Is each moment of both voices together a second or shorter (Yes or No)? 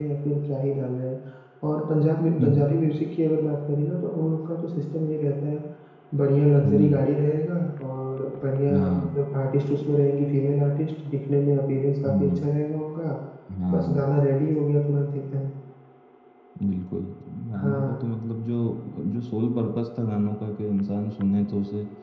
Yes